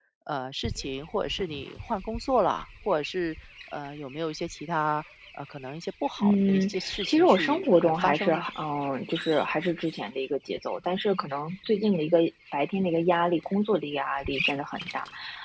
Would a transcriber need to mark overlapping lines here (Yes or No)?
Yes